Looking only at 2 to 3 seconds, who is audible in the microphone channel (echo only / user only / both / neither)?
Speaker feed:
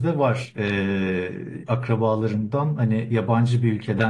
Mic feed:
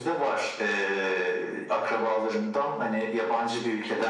echo only